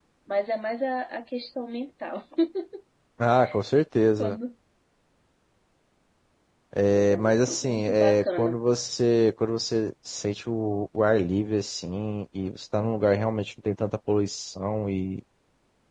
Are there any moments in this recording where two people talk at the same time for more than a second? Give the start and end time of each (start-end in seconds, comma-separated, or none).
6.9-8.6